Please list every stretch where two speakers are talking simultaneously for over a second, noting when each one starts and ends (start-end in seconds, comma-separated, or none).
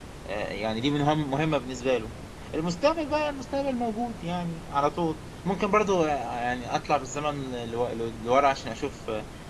none